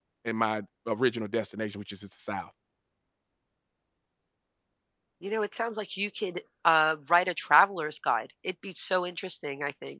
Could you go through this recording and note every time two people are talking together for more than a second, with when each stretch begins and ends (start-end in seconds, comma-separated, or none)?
none